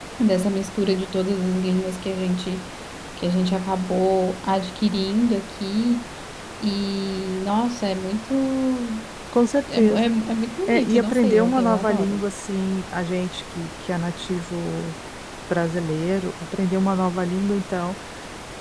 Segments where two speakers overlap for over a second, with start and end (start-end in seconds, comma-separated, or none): 10.7-12.2